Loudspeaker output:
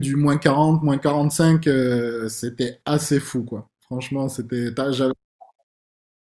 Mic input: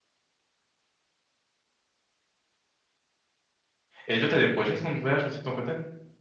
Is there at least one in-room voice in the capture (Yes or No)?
Yes